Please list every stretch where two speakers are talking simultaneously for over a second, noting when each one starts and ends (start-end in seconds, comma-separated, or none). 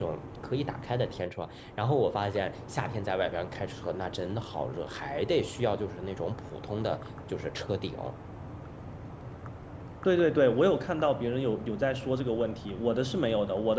none